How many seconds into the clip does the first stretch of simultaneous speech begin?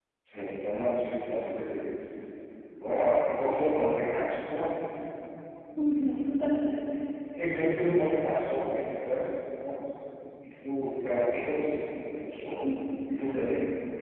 none

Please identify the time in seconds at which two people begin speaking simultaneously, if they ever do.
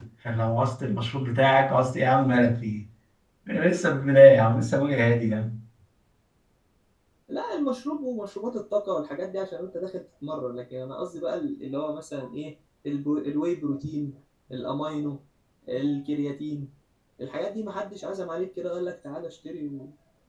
none

